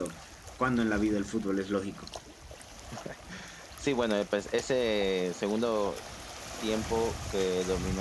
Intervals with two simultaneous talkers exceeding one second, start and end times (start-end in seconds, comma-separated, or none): none